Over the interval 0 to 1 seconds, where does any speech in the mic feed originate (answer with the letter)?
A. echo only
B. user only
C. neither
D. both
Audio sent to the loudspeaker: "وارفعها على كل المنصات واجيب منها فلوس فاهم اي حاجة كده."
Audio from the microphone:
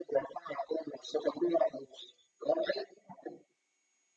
A